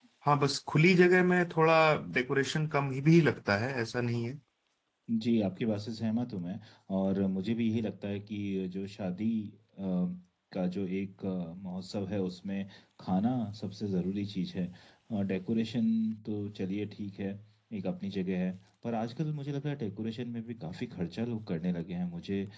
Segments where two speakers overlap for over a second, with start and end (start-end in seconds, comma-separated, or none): none